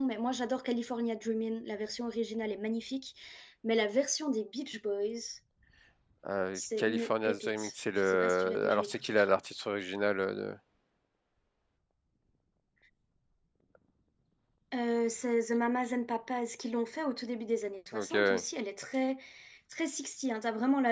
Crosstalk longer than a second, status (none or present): present